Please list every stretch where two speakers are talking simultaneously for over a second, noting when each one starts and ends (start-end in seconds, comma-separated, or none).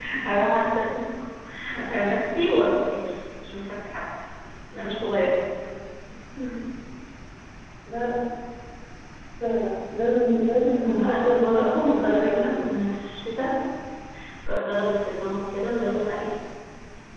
10.8-12.6